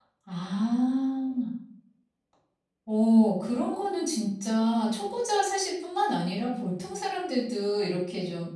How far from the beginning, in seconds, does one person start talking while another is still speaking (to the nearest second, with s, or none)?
none